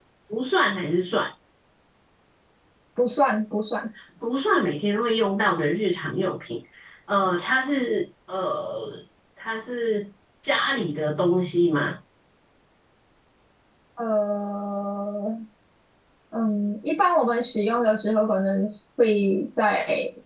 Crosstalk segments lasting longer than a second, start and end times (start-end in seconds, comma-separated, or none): none